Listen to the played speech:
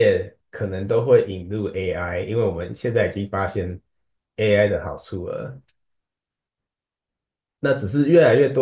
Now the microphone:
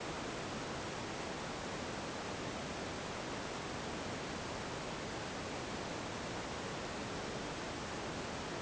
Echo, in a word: none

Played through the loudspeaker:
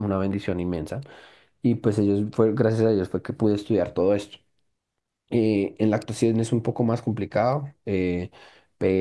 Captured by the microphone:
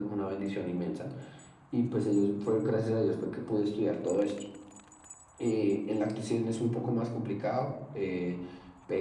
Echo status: present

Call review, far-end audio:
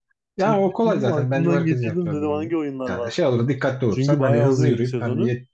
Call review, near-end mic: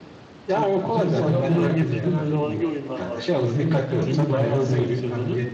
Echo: present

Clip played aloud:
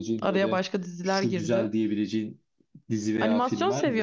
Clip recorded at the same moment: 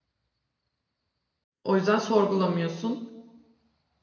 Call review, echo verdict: none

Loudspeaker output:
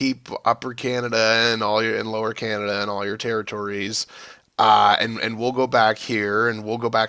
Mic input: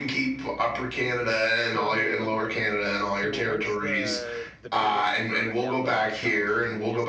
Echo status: present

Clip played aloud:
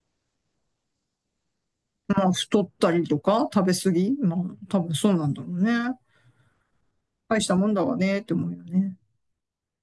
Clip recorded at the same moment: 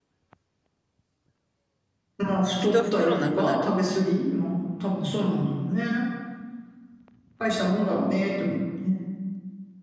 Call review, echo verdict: present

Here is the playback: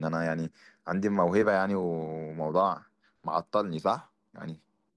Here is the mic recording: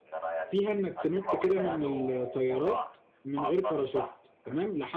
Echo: present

